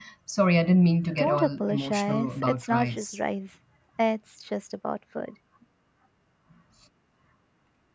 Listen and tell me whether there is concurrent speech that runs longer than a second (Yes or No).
Yes